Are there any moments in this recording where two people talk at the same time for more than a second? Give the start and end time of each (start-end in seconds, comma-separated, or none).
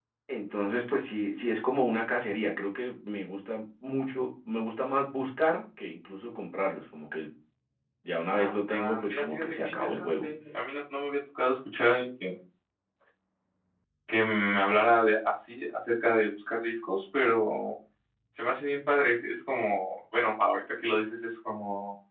8.2-10.2